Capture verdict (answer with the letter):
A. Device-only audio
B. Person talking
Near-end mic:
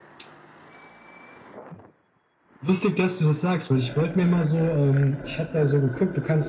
A